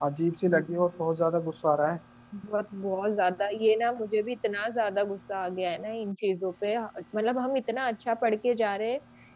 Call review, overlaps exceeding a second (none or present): none